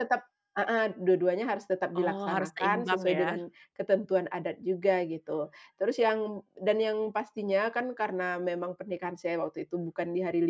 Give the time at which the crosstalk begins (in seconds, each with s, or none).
1.9 s